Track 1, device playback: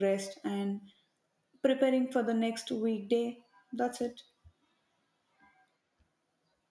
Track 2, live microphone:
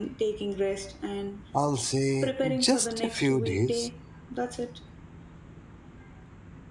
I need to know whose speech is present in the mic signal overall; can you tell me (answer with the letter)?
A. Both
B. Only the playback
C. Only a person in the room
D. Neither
A